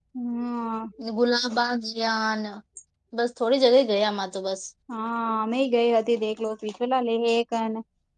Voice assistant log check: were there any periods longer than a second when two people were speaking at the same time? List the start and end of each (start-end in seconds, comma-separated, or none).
none